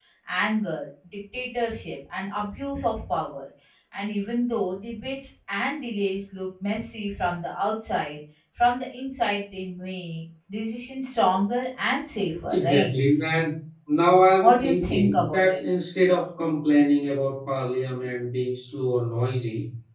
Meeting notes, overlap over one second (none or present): present